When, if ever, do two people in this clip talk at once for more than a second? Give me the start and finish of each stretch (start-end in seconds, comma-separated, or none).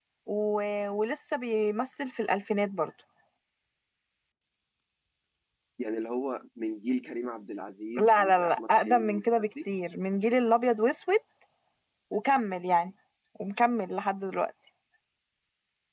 8.0-9.4